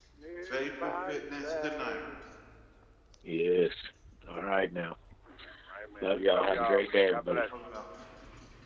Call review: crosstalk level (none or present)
present